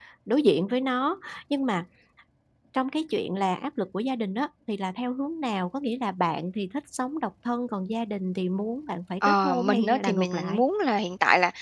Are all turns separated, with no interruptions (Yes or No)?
No